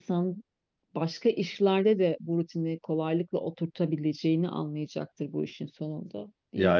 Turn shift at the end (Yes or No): Yes